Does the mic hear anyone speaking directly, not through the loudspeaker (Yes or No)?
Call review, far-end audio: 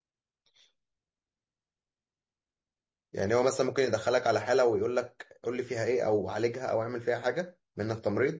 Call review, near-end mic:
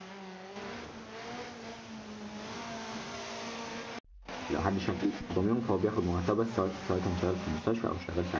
Yes